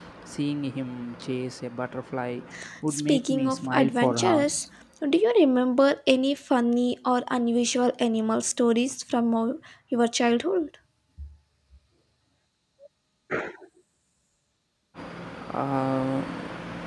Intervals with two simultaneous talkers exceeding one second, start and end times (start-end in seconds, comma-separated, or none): 2.9-4.6